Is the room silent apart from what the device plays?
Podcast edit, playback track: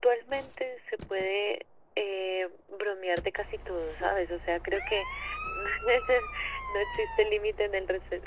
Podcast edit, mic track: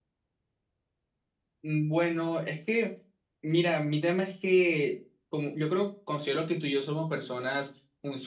No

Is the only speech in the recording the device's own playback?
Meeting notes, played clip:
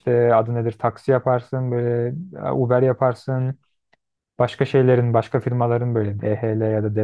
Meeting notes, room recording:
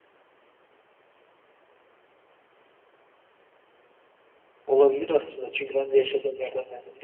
No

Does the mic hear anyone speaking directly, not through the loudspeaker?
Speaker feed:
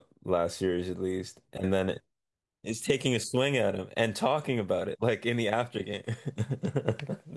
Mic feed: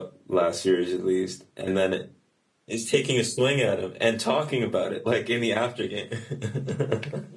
No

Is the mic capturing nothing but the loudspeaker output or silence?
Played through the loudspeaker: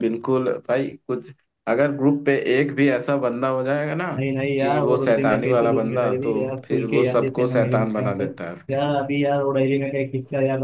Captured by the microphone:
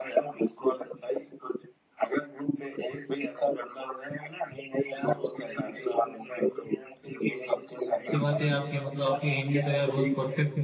No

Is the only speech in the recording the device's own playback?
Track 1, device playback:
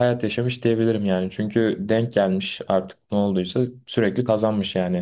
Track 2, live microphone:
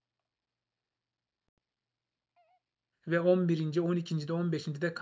No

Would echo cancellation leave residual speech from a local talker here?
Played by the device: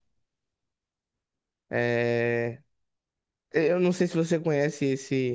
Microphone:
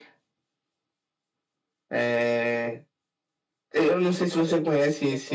Yes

